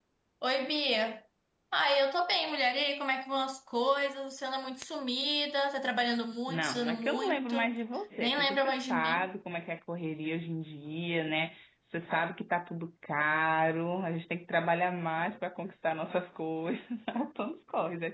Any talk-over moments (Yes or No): Yes